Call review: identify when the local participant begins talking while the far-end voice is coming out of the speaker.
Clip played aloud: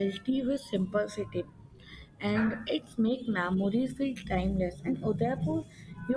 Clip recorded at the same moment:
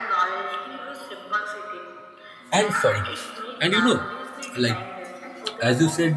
2.5 s

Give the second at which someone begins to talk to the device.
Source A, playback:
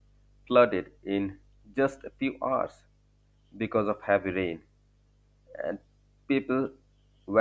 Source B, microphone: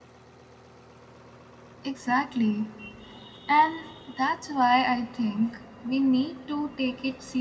1.8 s

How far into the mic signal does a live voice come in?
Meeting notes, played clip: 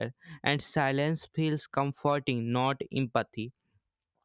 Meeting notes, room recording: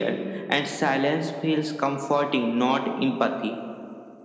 none

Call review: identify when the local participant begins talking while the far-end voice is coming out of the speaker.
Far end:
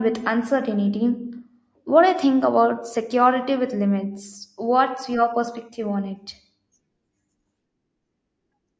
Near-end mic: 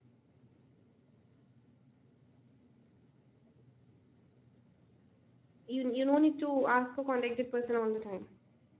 5.7 s

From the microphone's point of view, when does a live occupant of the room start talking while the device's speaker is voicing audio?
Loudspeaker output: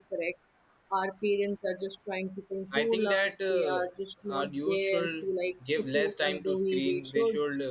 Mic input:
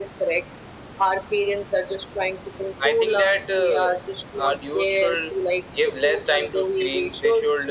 none

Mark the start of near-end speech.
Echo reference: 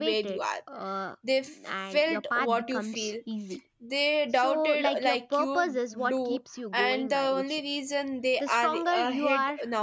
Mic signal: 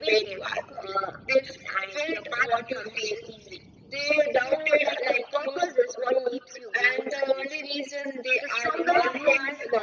8.7 s

